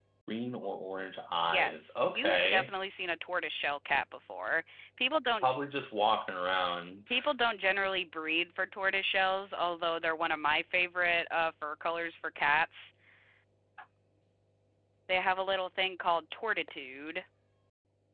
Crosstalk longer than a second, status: present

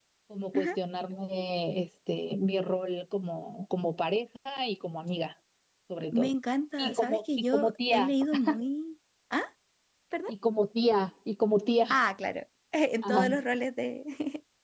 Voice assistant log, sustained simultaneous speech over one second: present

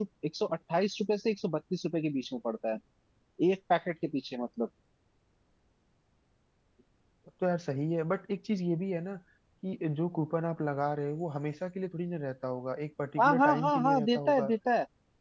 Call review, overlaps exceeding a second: present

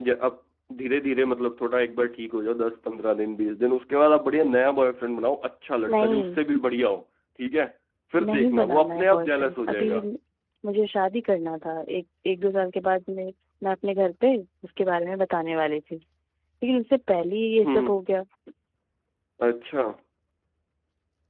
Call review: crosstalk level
present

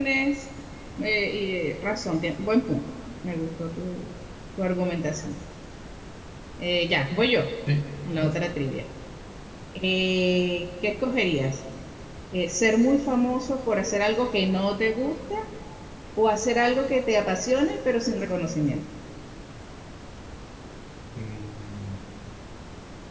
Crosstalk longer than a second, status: none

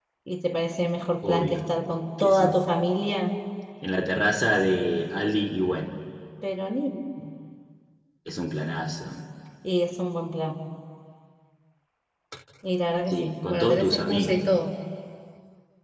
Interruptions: present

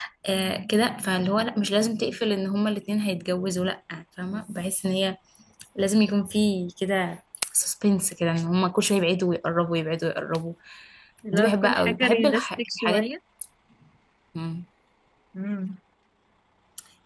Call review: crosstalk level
present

